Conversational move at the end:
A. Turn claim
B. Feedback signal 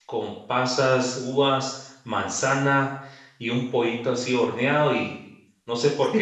A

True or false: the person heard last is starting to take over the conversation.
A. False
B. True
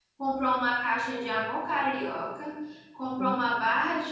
A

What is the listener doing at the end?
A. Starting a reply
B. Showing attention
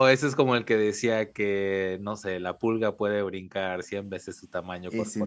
B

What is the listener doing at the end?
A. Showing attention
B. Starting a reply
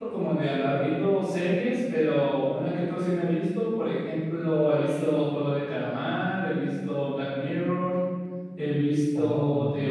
A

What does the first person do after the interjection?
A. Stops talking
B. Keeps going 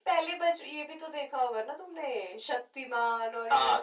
A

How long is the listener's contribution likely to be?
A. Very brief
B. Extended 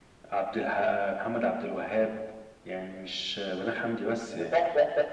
B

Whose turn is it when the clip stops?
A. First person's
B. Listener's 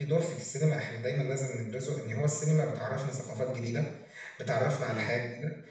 A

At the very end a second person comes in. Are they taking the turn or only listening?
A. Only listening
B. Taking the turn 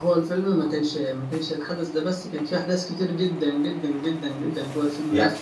A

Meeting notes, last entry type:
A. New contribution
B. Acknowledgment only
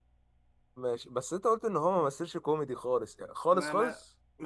A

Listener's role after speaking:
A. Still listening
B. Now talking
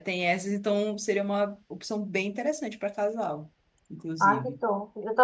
B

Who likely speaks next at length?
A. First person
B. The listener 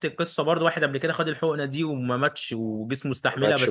A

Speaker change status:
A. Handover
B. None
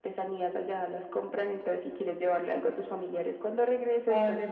A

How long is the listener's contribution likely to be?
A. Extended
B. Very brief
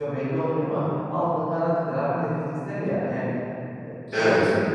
B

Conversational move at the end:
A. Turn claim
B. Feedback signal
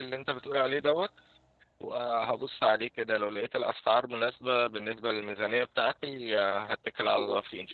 A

